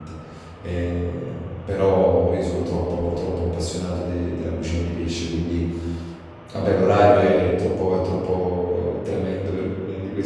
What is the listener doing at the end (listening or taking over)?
listening